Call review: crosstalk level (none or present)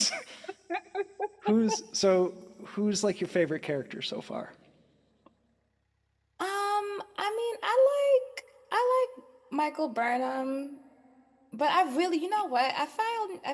none